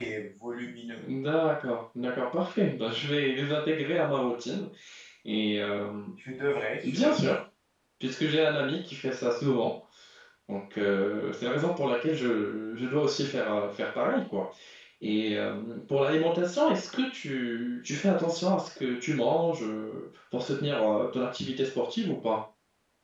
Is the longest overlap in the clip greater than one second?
No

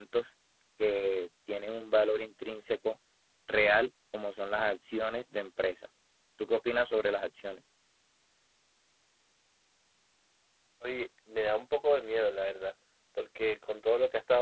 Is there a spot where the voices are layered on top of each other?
No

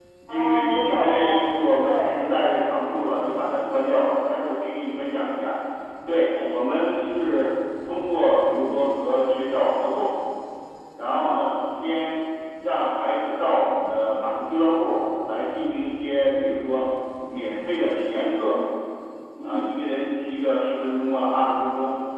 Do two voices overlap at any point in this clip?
Yes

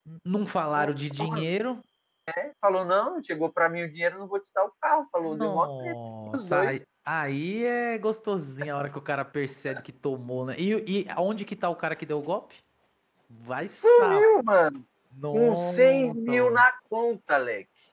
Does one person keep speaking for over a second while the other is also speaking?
Yes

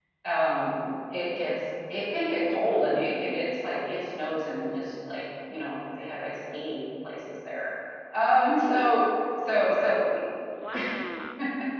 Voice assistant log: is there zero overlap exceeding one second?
Yes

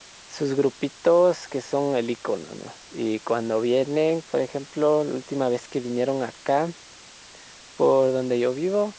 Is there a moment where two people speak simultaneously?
No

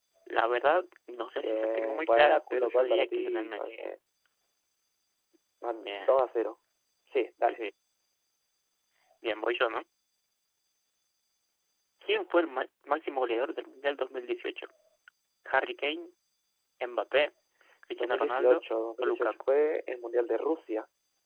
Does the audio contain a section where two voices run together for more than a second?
Yes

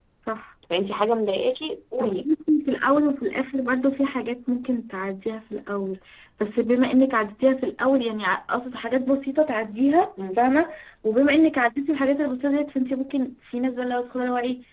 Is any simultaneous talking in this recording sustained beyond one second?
No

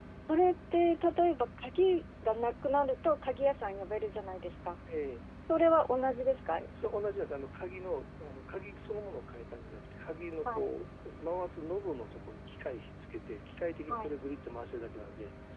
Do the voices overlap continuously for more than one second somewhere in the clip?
No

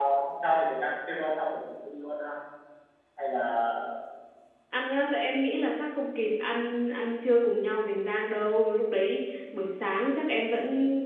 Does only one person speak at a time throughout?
Yes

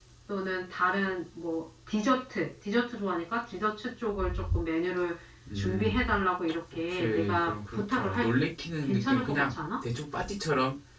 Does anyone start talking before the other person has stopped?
Yes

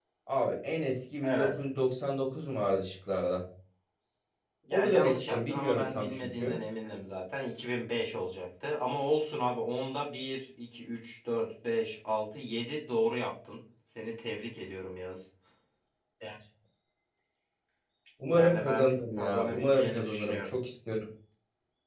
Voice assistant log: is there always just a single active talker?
No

